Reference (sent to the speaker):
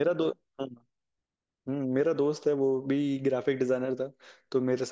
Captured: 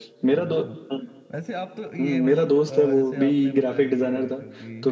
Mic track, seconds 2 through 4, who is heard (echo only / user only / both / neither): both